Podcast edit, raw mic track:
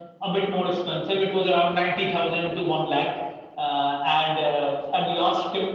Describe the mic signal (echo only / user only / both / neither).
echo only